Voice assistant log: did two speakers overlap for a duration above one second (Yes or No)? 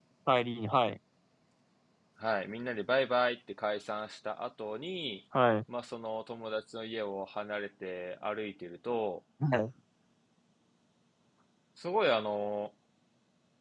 No